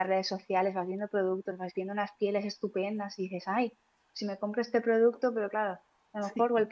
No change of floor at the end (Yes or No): Yes